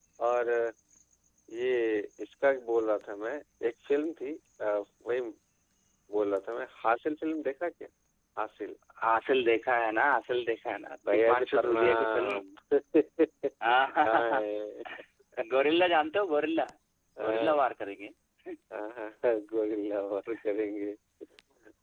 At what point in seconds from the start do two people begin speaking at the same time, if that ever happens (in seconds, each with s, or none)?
11.1 s